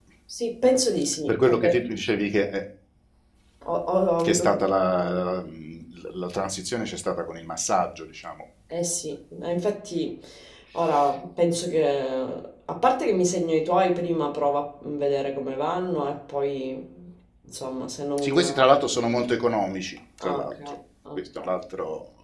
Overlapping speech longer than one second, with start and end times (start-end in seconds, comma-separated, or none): none